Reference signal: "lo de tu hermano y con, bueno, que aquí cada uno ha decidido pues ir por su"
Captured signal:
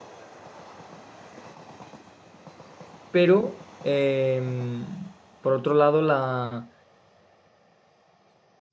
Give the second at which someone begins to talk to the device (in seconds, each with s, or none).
3.1 s